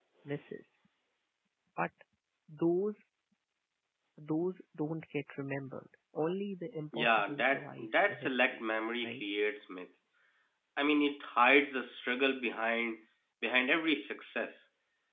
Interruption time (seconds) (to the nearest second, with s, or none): 7 s